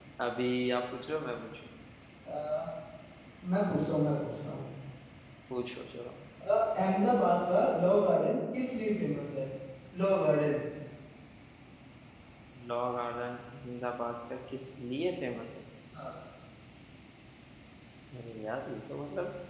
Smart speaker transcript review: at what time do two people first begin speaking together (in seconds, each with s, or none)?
none